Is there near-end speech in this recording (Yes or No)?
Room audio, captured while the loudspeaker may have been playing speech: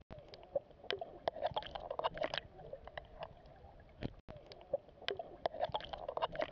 No